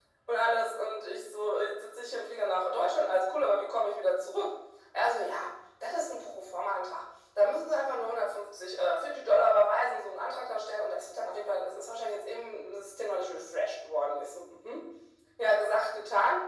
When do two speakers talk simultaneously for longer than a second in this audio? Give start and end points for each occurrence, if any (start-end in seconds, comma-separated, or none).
none